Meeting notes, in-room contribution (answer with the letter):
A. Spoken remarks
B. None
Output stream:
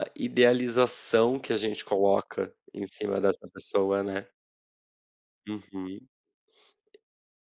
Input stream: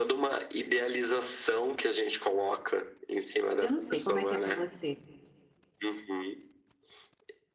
A